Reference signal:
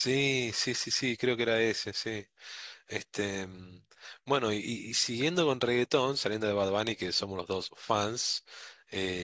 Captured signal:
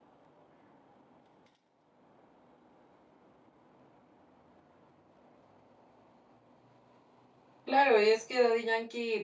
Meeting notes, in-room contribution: present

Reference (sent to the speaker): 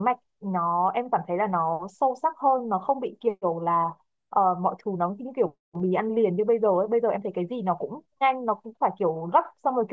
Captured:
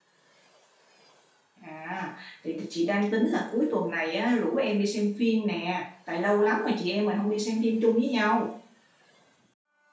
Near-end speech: present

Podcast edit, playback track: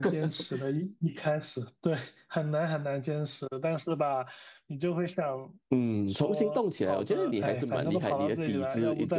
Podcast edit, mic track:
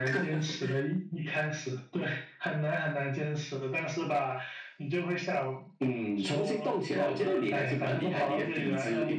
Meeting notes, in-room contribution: none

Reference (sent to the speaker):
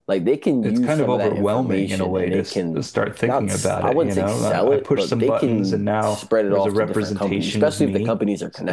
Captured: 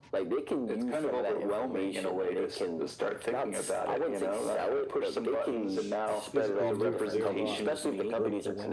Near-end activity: present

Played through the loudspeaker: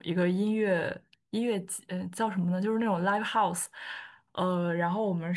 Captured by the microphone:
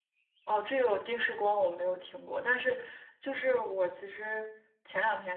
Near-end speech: present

